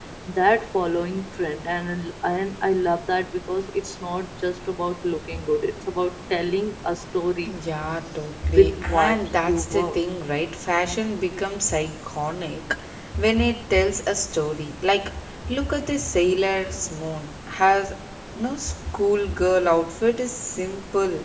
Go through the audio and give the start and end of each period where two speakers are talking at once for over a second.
8.5-10.0

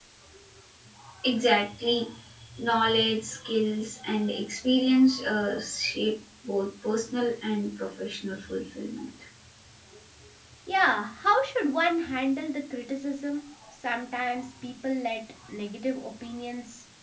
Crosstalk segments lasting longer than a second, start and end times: none

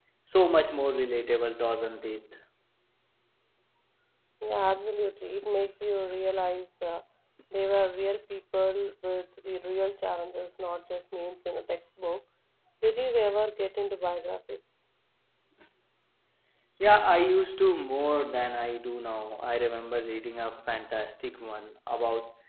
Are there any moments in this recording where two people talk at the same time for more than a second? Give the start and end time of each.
none

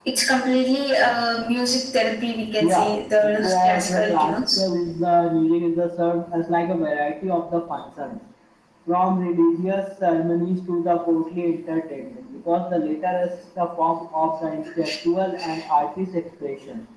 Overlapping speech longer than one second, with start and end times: 2.6-4.6

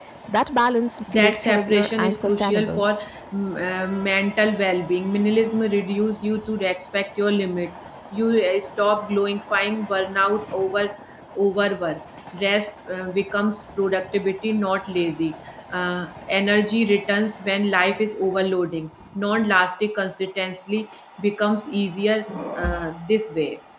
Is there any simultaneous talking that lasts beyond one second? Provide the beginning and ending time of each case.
1.1-2.8

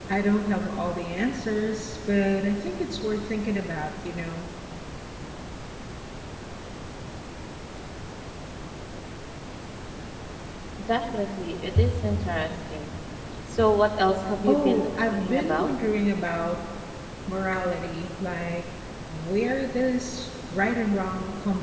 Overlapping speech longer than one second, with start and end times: 14.5-15.7

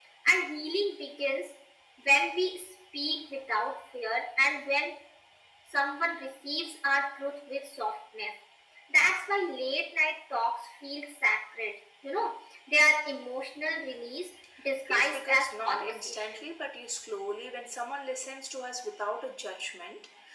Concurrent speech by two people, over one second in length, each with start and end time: 14.9-16.5

